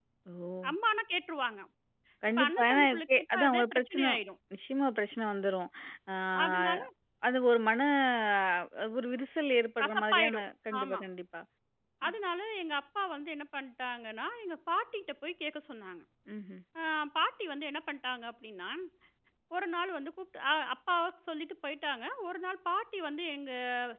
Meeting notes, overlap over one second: present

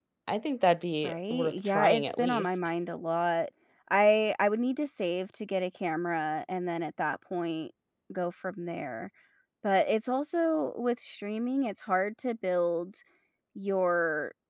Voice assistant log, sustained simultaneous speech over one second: present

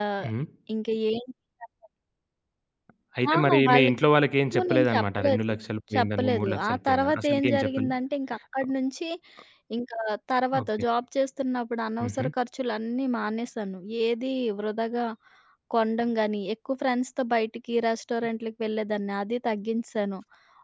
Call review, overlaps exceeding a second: present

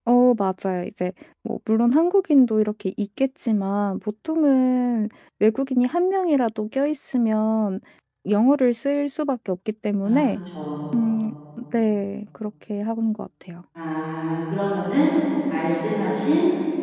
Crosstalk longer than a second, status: none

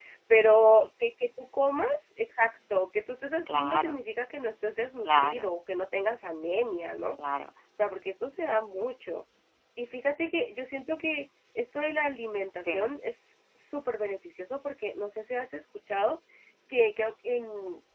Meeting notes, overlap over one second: none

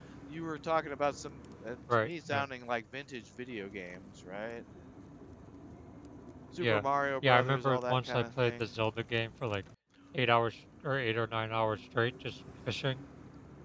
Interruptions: present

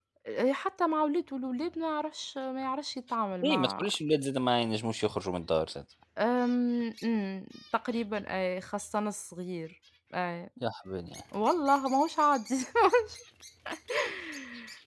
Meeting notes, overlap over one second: none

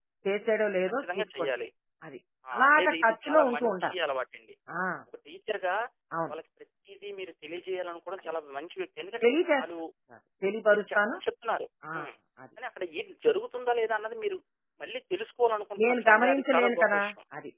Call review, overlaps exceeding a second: present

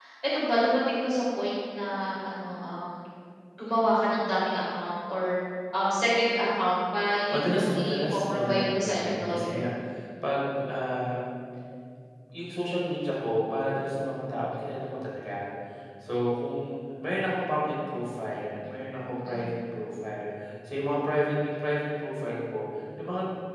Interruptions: present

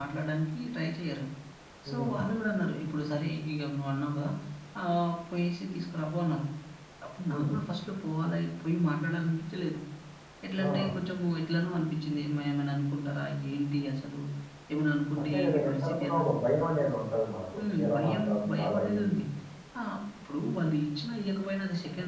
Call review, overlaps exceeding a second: present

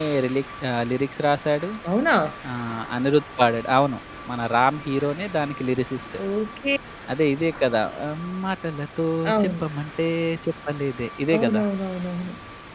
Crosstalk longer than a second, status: none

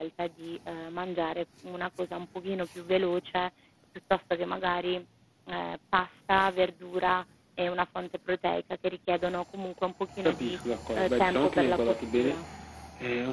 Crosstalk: present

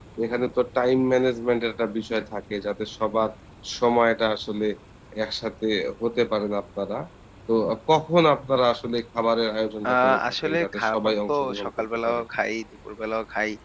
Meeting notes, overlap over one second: present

